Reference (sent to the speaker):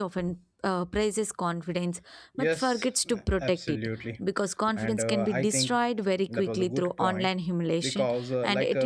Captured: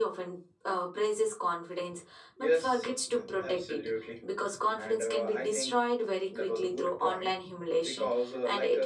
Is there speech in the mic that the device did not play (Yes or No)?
No